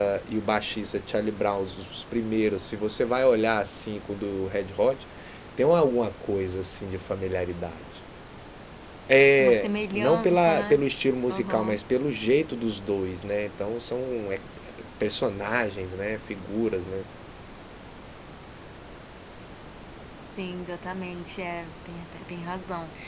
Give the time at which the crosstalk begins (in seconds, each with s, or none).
9.4 s